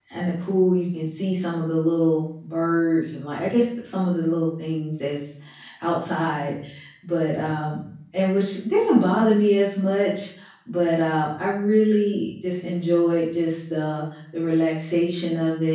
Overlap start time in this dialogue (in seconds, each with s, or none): none